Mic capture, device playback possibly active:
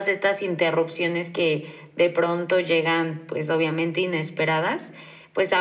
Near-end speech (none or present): none